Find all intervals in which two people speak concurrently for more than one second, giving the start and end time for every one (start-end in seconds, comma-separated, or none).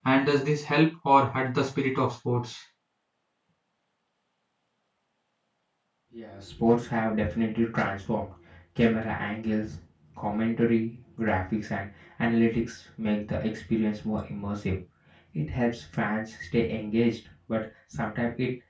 none